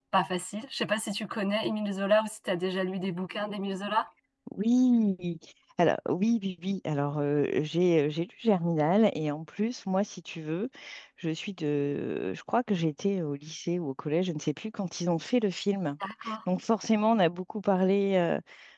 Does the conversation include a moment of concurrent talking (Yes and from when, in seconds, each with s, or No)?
No